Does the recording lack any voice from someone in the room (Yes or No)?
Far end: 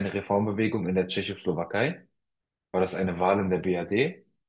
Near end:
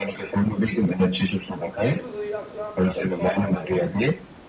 No